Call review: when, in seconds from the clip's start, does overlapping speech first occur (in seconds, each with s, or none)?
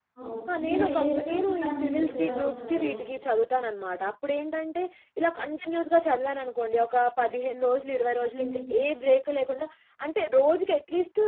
0.5 s